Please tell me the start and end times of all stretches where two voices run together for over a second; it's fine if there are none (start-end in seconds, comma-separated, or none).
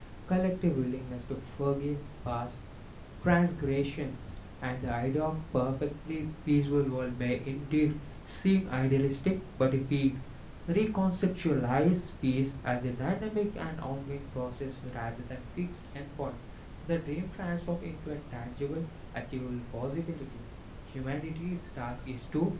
none